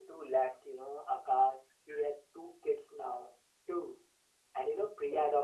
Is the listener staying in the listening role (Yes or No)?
Yes